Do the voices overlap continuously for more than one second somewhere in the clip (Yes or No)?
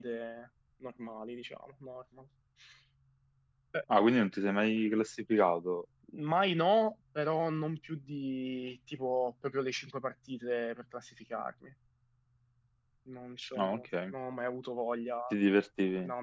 No